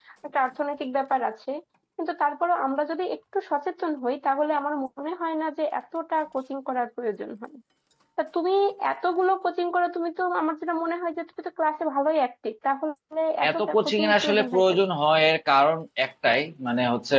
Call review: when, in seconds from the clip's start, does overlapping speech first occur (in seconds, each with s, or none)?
13.4 s